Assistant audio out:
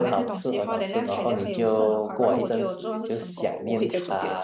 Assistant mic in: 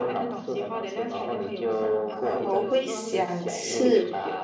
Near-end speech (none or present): present